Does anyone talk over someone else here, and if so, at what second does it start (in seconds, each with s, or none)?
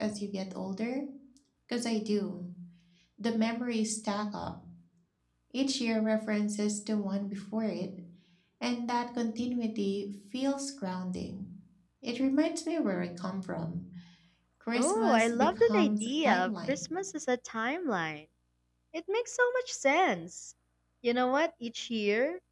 14.8 s